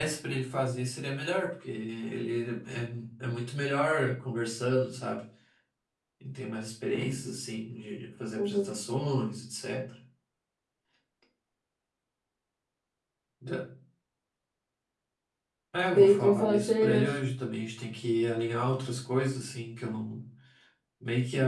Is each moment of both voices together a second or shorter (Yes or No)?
No